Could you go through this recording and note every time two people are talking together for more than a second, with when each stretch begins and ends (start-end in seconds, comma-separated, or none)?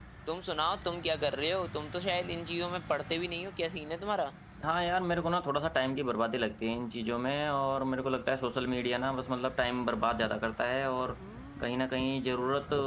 none